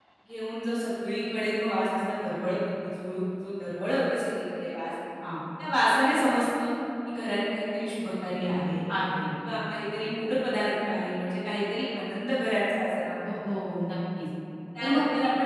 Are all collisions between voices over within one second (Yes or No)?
Yes